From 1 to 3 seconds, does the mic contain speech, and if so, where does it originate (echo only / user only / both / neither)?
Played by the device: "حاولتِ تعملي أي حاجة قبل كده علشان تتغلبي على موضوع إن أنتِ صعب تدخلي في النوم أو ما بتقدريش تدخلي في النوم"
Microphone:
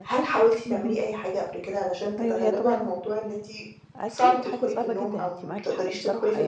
both